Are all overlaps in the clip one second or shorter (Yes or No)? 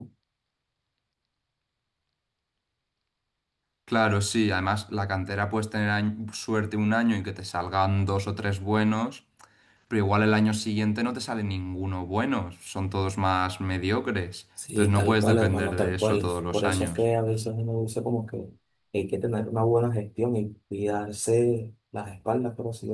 No